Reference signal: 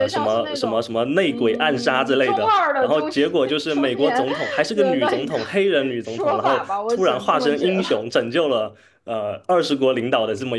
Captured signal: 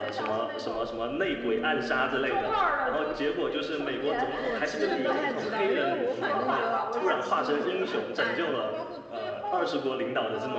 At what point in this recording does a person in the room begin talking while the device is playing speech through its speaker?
4.3 s

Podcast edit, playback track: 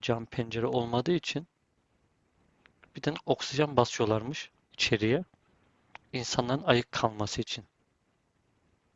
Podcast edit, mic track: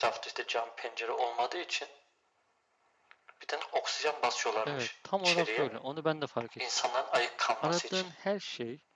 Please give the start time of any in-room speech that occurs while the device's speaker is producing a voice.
4.6 s

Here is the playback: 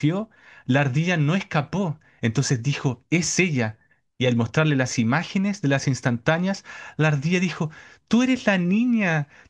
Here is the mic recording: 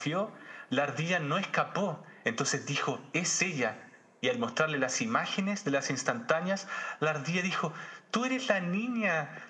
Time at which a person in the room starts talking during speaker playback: none

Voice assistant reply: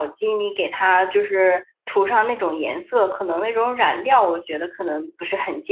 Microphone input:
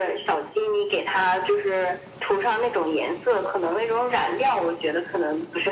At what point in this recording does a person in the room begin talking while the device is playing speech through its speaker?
none

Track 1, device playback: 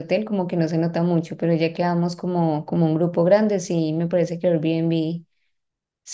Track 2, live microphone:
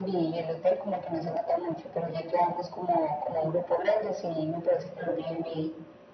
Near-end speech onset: none

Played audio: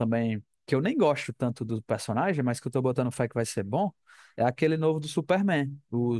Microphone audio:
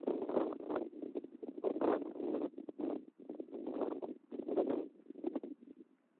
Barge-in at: none

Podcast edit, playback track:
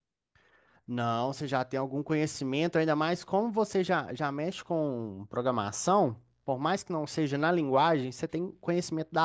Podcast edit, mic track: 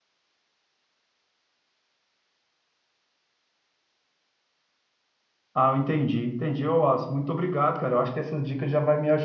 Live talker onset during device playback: 5.5 s

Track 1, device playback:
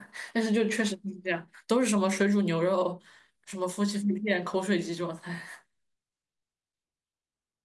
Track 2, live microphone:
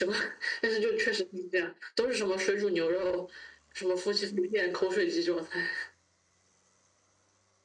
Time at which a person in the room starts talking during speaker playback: none

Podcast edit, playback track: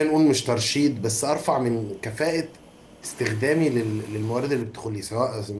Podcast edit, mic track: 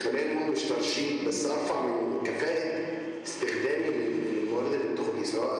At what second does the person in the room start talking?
none

